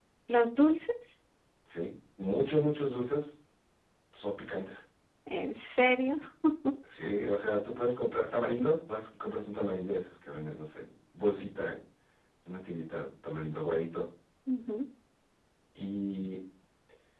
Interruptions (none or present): none